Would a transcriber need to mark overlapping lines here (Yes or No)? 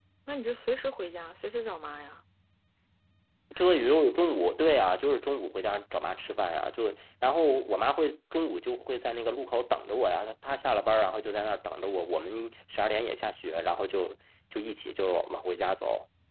No